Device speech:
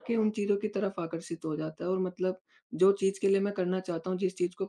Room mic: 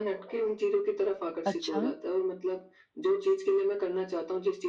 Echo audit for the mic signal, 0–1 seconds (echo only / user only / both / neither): echo only